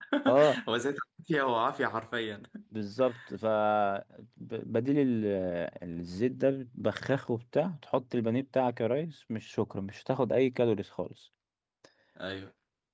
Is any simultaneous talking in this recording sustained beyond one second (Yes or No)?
No